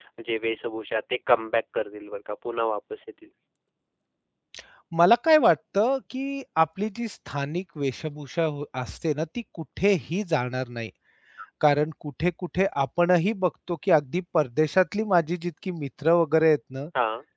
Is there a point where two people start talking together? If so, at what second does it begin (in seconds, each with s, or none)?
none